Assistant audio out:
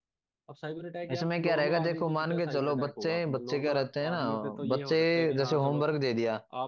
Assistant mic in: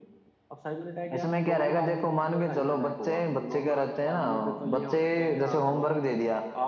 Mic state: echo only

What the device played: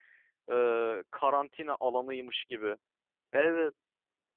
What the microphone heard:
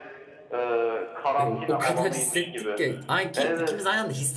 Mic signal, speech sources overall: both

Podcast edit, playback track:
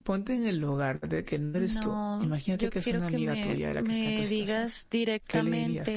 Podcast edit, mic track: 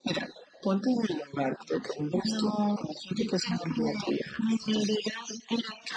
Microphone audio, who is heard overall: echo only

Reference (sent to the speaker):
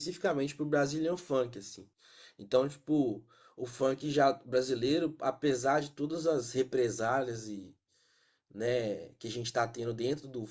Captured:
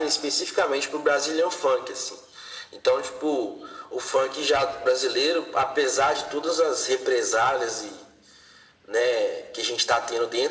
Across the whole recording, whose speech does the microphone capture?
echo only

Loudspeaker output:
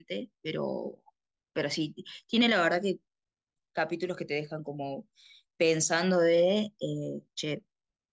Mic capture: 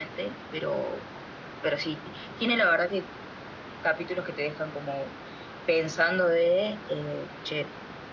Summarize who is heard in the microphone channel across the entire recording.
echo only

